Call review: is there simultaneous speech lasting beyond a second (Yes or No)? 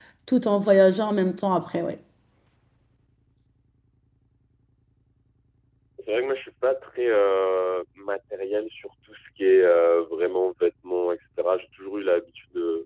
No